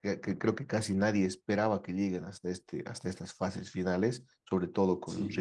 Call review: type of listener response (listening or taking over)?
listening